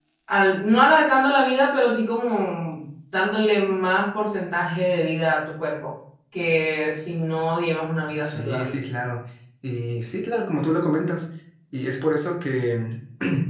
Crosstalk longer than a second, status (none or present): none